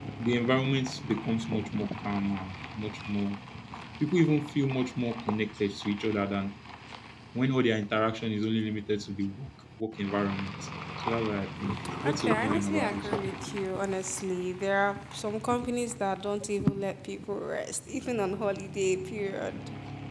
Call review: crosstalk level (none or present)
present